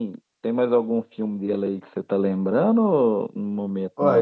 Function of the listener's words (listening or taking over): taking over